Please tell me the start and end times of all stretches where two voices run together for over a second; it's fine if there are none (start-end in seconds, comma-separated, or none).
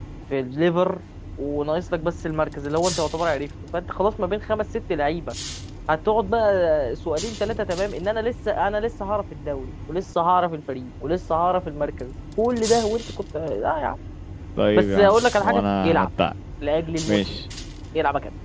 14.7-16.1